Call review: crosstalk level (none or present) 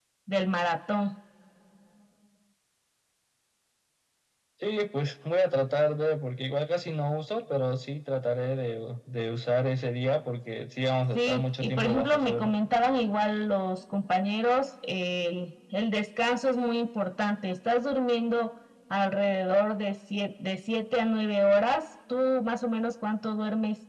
present